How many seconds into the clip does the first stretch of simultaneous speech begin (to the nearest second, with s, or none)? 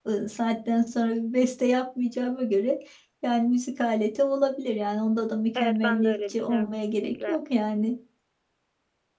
6 s